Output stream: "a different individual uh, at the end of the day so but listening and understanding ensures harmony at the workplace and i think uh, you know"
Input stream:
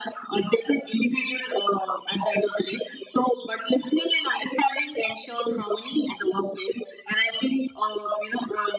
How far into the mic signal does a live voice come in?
none

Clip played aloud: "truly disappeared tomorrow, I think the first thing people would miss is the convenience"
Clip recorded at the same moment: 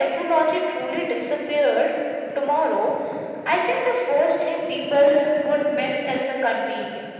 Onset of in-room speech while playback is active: none

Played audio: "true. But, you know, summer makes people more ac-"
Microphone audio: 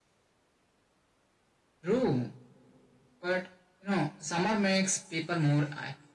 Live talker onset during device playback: none

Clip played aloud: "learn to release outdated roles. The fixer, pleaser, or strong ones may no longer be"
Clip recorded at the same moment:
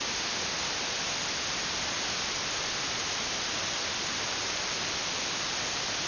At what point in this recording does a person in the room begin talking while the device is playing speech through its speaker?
none

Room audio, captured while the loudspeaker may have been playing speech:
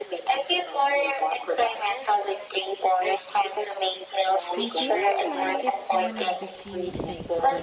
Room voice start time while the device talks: 4.6 s

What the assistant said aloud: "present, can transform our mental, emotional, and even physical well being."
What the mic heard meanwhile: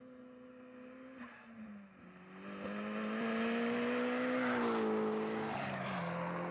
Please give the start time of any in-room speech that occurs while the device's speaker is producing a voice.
none

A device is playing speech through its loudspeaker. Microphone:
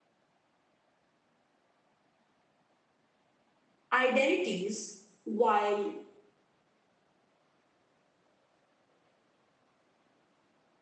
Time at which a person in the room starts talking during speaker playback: 3.9 s

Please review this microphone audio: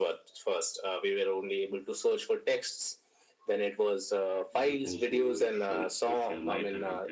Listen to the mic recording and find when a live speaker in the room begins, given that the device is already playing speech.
4.5 s

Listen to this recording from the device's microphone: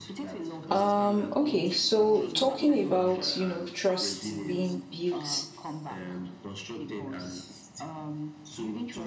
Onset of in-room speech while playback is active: 0.7 s

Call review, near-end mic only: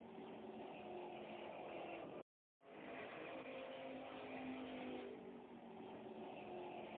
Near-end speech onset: none

